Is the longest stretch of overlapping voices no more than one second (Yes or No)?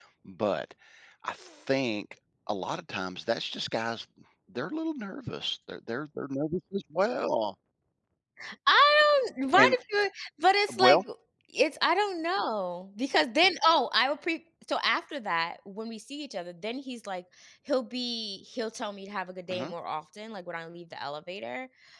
Yes